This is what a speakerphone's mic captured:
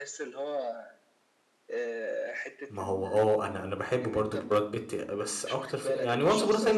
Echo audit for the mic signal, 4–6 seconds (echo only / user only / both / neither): both